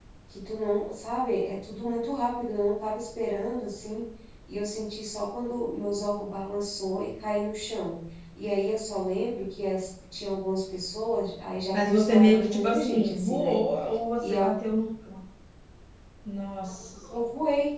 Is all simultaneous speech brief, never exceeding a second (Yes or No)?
No